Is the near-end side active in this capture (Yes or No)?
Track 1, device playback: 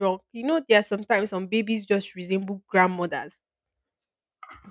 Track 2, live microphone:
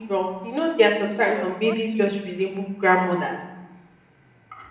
Yes